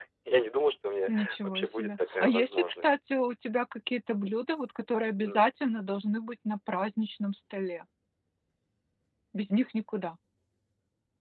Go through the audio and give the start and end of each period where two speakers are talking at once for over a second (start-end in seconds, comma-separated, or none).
1.1-2.9